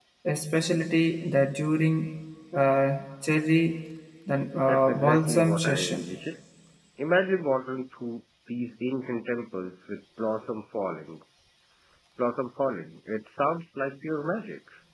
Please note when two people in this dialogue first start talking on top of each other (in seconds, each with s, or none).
4.7 s